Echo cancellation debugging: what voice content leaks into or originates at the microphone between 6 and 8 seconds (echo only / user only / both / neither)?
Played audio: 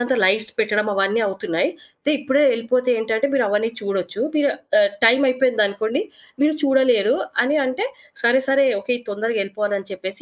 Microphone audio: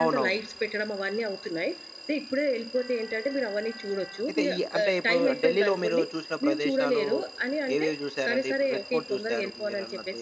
both